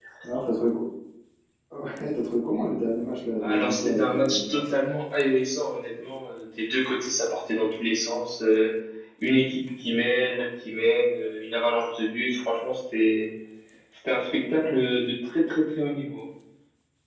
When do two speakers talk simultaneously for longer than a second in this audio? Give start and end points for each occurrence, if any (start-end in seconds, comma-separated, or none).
3.4-4.8